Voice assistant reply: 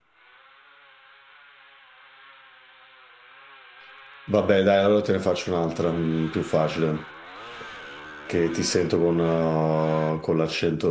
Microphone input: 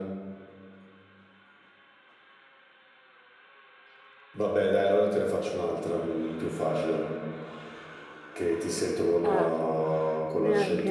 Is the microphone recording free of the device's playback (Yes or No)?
No